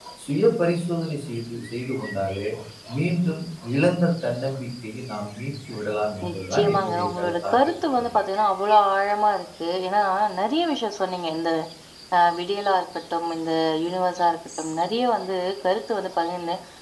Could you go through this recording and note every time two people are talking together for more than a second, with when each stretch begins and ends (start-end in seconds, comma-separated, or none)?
6.2-8.1